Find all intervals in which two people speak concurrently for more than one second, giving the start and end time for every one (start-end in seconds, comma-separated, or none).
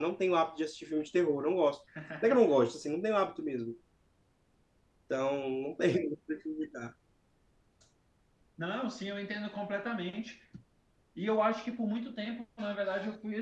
none